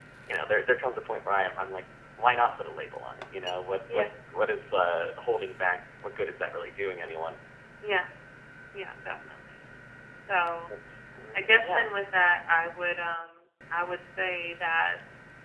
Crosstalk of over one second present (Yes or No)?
No